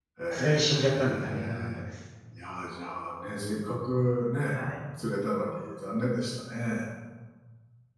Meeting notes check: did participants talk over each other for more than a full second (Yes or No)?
Yes